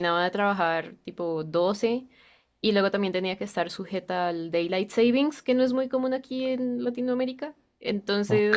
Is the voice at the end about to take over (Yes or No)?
Yes